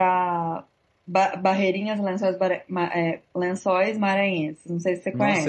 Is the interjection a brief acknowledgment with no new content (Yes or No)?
No